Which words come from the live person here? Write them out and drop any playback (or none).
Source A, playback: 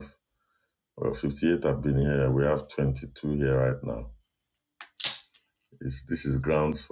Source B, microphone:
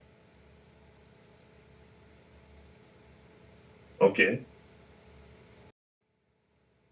okay.